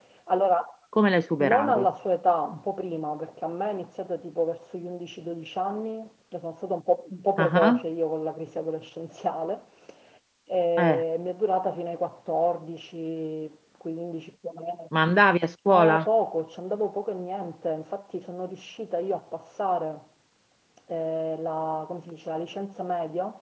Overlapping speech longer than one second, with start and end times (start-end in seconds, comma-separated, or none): none